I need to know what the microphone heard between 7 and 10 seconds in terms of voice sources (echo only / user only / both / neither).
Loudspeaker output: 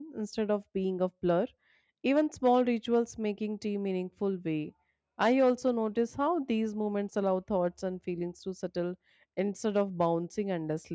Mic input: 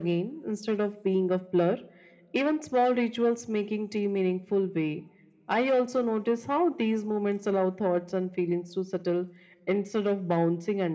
echo only